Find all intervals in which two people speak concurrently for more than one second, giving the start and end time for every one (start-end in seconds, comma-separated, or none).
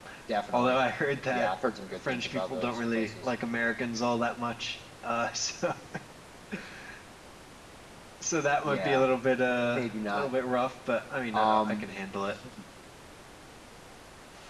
2.1-3.3